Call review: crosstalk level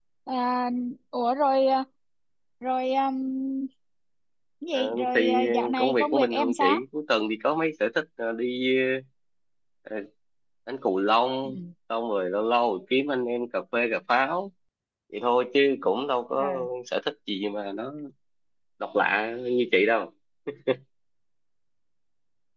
present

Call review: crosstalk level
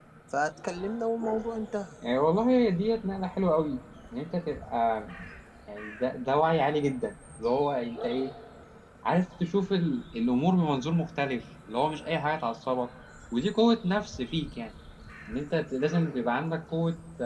none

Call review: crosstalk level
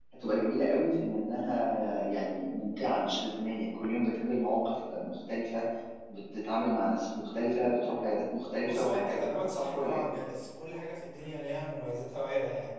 present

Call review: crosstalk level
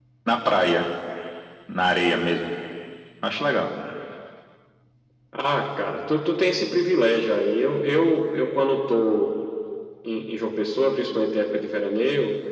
none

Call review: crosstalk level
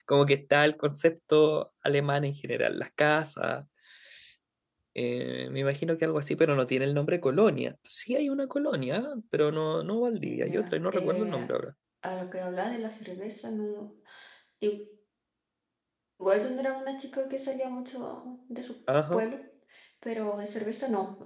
present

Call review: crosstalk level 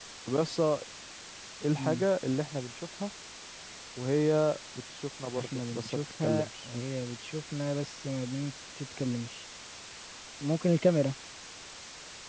present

